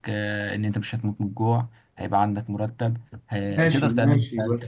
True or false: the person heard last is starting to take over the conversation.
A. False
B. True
B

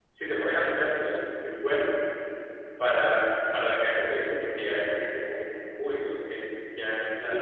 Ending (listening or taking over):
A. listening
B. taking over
A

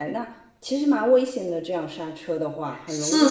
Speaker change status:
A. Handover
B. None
A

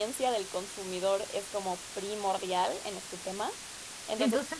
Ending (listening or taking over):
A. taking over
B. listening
B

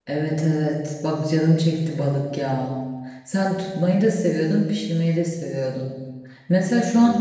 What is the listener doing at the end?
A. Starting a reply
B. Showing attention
B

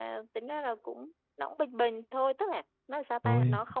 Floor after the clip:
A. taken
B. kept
B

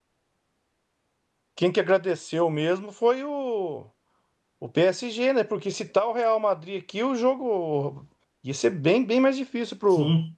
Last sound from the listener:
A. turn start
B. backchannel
A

